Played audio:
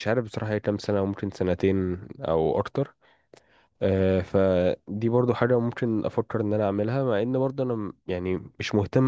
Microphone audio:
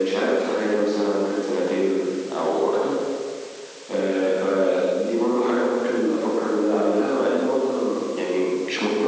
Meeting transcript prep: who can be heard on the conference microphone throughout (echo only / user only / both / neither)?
echo only